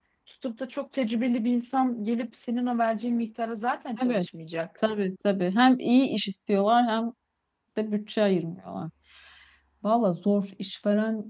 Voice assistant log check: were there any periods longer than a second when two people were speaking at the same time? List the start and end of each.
none

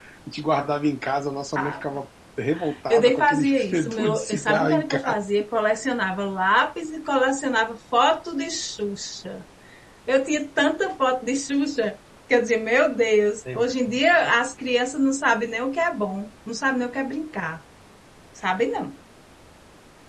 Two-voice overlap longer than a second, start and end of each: 2.9-5.1

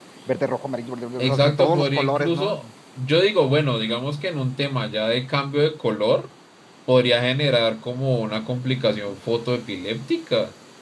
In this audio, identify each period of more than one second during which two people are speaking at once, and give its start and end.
1.2-2.6

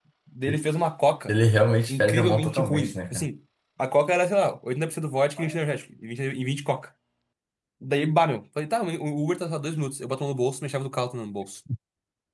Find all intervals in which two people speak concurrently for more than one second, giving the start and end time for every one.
1.9-3.3

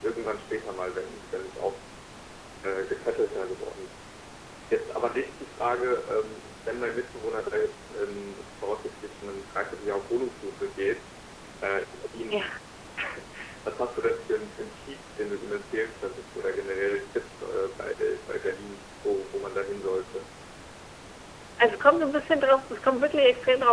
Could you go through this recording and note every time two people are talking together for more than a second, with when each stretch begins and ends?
none

